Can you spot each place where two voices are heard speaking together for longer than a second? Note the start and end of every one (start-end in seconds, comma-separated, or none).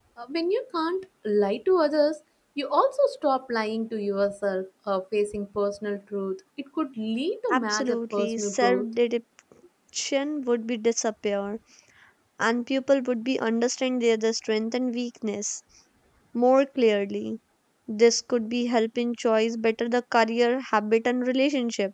7.5-8.9